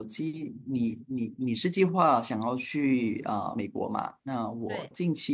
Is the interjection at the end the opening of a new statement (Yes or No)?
No